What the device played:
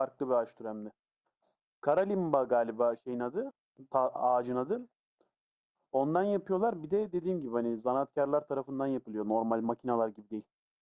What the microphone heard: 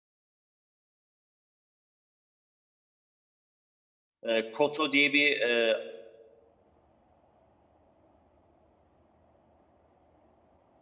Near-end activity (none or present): present